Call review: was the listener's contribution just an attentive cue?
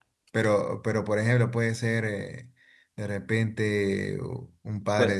Yes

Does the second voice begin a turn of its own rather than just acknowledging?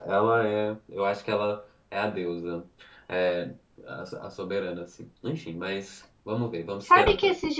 Yes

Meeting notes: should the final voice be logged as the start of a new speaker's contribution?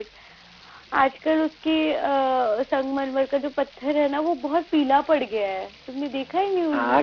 Yes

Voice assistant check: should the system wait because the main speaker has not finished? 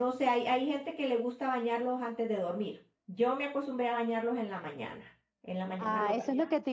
No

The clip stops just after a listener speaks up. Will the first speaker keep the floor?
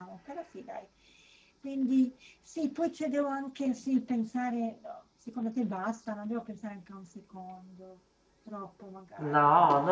No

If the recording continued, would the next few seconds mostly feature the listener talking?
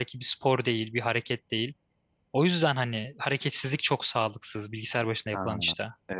Yes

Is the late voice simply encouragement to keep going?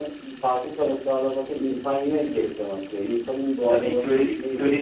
No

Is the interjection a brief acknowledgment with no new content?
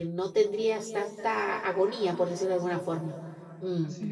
Yes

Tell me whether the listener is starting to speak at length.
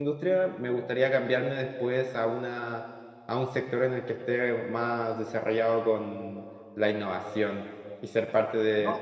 No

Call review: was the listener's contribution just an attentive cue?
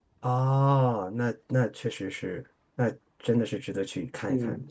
No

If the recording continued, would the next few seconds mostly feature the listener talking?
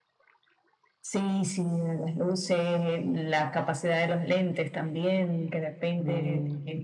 No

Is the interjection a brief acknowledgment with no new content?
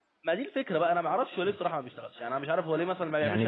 No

